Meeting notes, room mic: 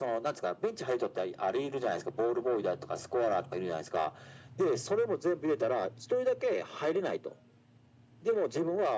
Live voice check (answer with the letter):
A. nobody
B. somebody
A